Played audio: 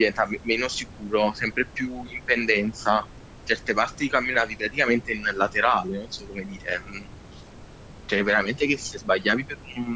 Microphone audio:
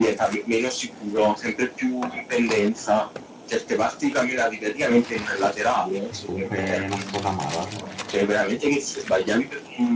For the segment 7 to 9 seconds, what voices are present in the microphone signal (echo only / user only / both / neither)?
both